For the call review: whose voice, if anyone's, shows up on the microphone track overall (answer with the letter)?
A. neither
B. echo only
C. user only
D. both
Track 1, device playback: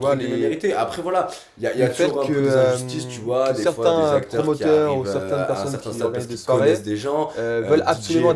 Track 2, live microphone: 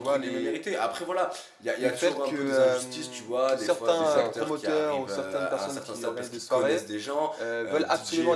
D